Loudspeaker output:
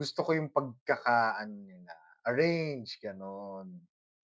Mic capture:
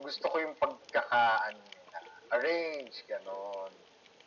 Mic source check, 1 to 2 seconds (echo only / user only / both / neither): echo only